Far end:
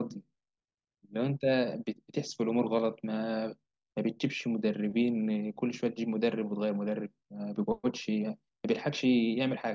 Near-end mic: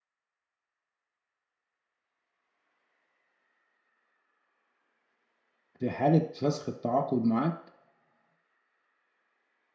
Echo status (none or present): none